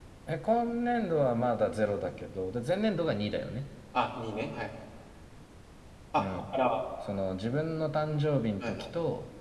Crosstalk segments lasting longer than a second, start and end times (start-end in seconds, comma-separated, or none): none